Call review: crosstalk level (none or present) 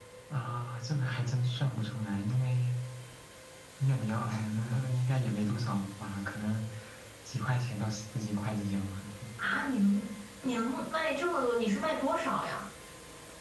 none